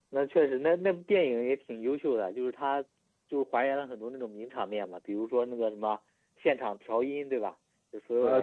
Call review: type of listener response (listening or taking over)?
taking over